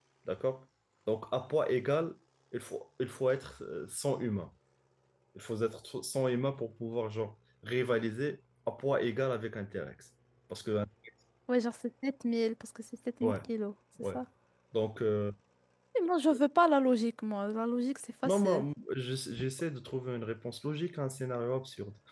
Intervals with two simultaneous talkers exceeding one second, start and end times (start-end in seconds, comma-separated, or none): none